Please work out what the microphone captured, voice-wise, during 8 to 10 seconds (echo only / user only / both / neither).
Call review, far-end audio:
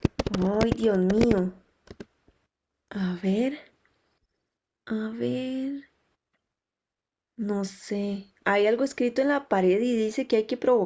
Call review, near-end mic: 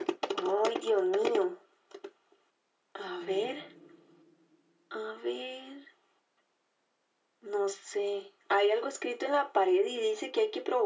echo only